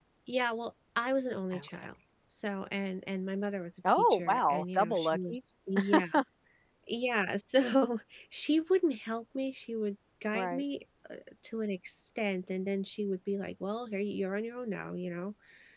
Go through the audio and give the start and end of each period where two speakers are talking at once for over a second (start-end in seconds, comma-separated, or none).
3.9-5.4